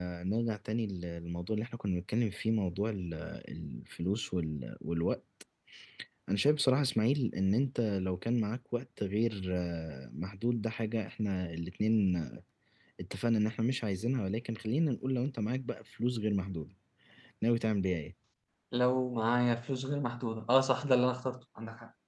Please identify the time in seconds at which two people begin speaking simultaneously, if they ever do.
none

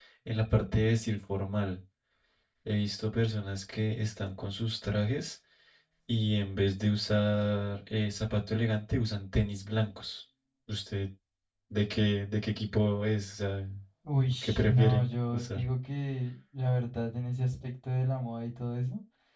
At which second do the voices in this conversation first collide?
14 s

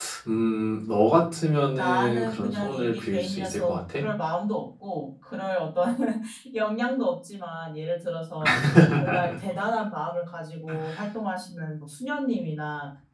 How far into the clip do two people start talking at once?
2 s

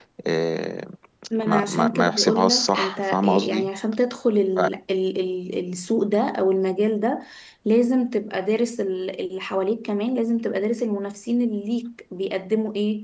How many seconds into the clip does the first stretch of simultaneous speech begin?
1 s

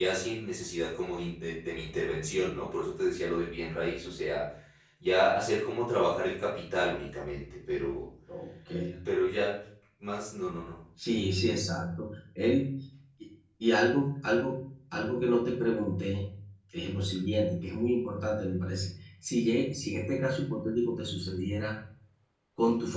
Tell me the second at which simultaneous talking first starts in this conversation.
none

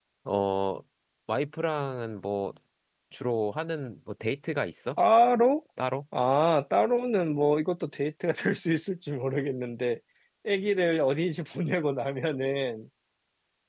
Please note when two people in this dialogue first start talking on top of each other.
none

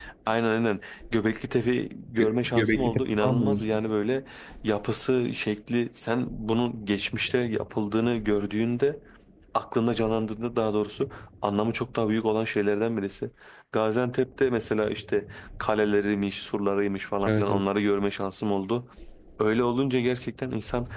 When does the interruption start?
2 s

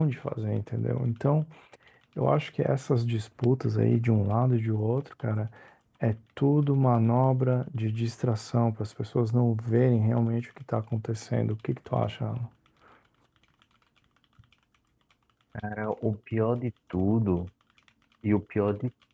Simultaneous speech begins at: none

